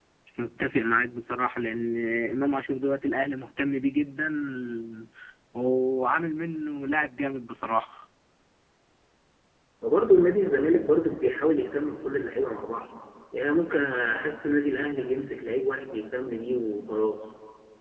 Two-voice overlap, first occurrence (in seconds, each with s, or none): none